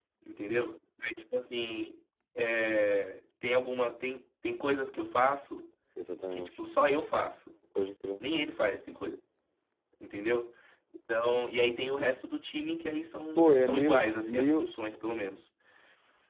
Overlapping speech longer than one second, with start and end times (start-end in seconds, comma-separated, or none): 13.4-14.7